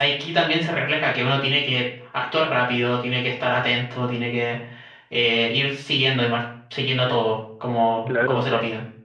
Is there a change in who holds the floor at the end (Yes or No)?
Yes